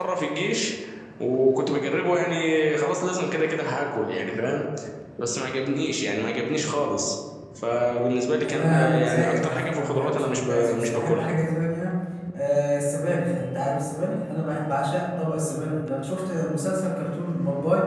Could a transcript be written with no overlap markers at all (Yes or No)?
No